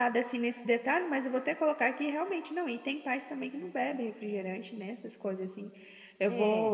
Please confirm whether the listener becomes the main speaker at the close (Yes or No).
No